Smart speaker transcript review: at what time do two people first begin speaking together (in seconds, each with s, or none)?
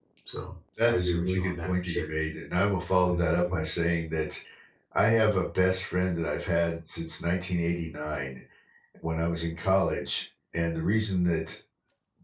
0.8 s